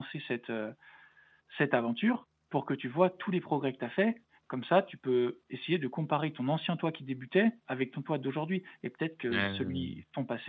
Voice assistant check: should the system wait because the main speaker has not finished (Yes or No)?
Yes